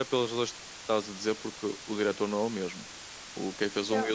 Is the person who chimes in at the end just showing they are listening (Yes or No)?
Yes